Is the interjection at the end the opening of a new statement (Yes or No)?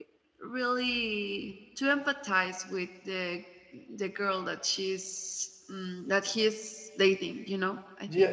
Yes